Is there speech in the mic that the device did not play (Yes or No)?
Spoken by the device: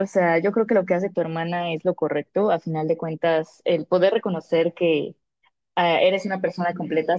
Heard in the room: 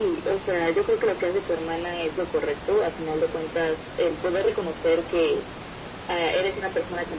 No